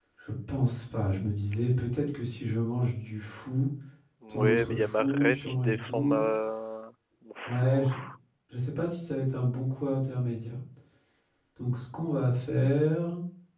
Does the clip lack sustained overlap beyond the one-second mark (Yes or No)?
No